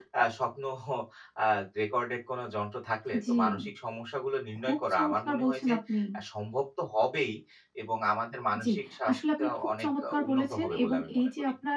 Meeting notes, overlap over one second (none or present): present